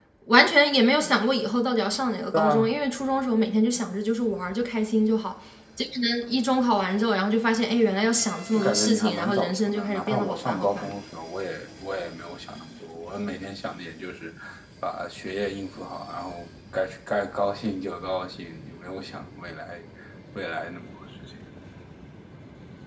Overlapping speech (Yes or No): Yes